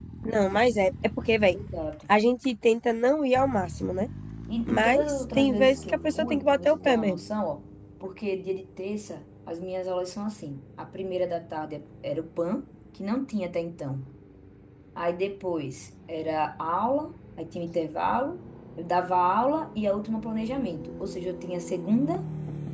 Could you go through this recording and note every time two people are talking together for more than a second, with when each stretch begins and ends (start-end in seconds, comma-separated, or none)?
4.7-7.2